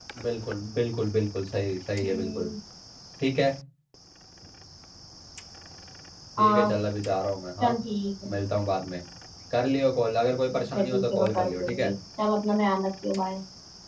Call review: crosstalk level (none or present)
present